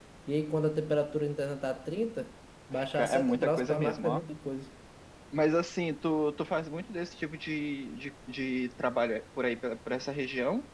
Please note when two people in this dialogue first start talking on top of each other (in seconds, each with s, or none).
2.7 s